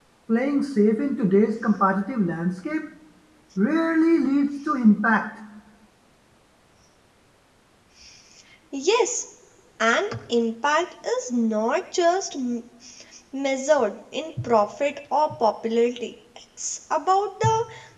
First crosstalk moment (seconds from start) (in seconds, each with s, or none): none